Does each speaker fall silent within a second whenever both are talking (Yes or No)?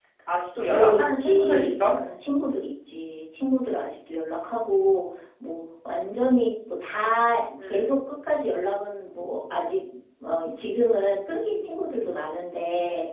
No